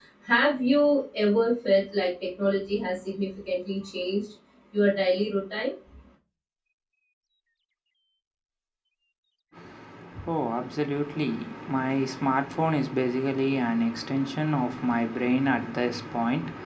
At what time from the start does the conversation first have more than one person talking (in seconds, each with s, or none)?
none